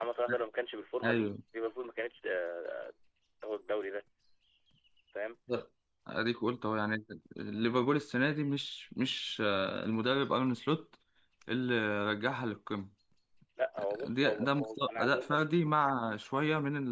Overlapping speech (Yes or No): Yes